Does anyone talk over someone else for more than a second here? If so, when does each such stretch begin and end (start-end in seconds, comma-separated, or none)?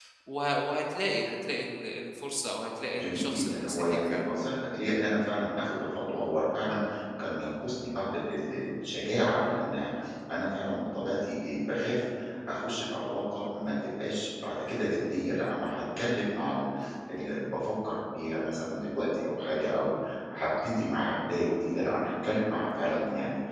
2.9-4.3